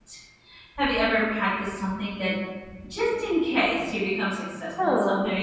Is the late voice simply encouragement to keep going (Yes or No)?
No